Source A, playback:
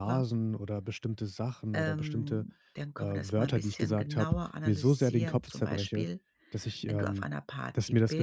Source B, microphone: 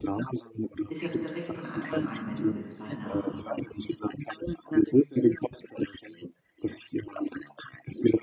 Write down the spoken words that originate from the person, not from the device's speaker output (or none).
ist das direkt von Anfang an, wenn du jetzt bei einer